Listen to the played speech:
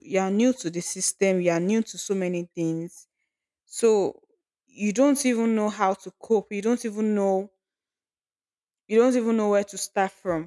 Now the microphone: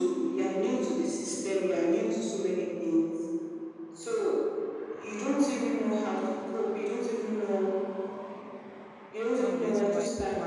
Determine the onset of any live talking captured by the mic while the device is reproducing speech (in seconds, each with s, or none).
9.3 s